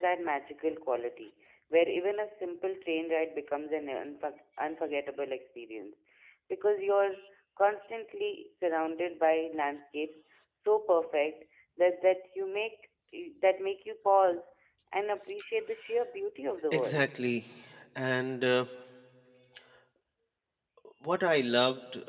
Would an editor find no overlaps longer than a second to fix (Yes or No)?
Yes